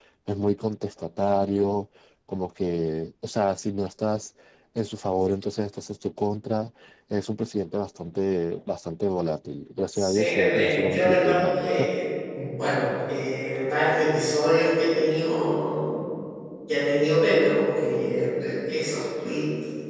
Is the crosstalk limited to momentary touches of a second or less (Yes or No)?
No